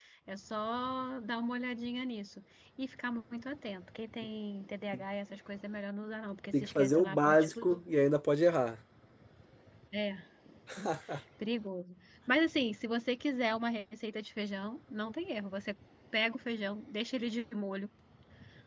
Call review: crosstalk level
present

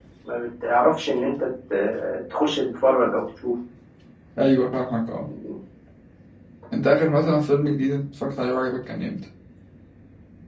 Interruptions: none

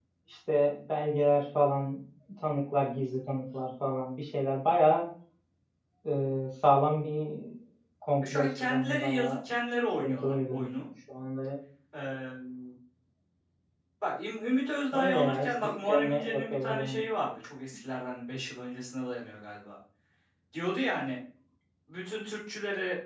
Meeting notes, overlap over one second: present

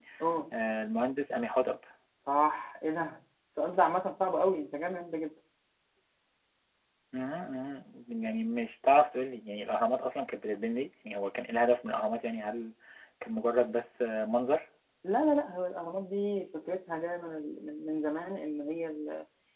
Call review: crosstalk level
none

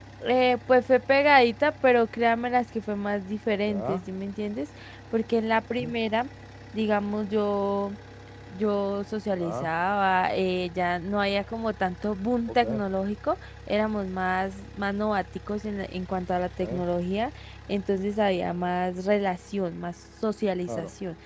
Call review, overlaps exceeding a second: none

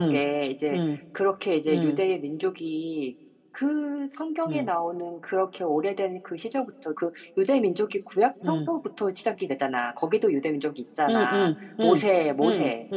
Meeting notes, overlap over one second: none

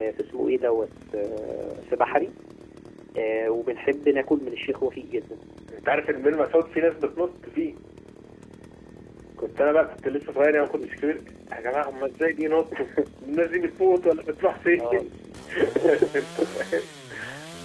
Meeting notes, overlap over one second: none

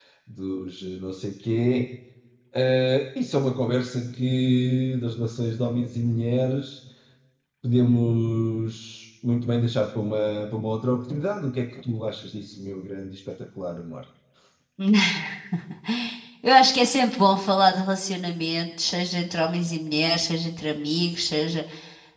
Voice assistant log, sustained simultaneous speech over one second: none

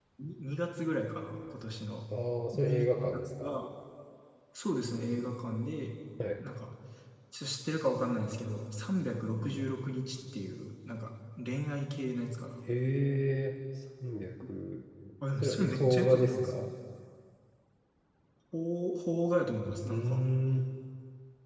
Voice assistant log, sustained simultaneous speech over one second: present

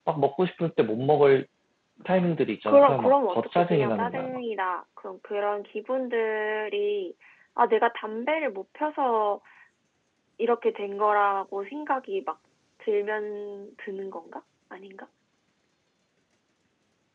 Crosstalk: present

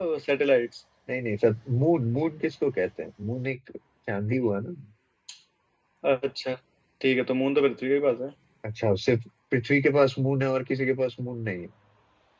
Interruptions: none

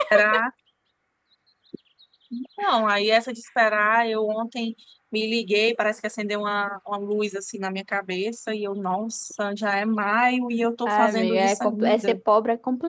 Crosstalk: present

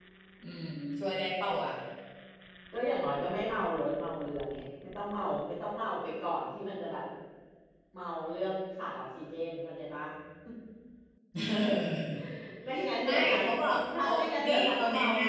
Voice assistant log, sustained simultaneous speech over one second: present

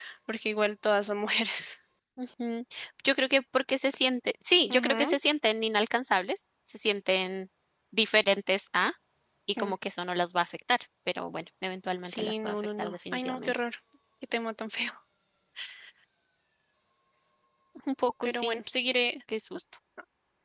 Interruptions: present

